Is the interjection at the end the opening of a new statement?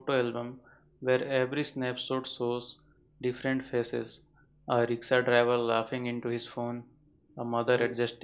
No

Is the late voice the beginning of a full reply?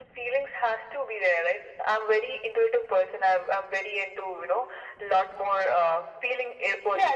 Yes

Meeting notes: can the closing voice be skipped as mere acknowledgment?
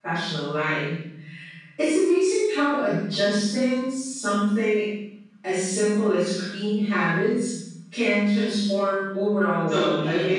No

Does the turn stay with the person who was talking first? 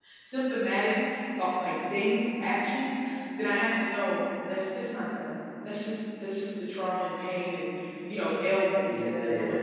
No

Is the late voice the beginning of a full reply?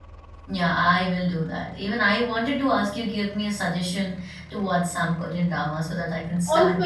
Yes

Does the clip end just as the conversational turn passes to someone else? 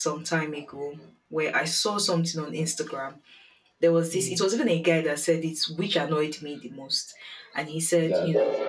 No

